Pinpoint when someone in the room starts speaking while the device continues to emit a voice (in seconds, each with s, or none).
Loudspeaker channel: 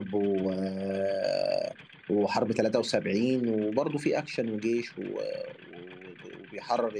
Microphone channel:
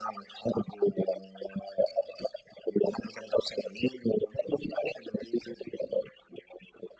none